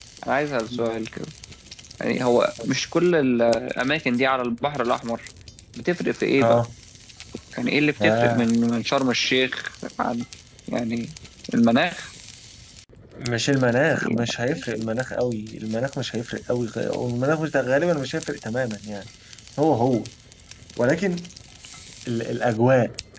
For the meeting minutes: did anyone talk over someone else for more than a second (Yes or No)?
No